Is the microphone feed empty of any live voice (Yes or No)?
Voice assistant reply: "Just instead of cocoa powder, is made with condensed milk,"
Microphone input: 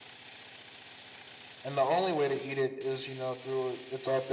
No